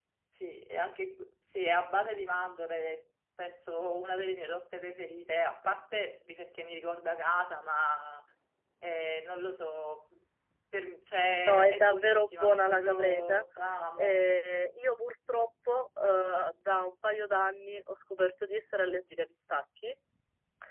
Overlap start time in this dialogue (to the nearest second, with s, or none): 11 s